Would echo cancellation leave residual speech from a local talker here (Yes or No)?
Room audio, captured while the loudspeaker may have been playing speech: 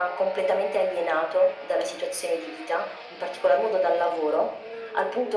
No